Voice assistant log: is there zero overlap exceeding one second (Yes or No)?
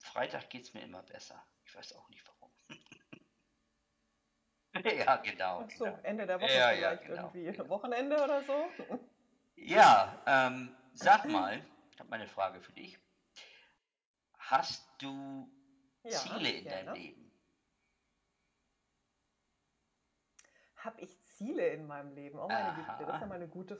No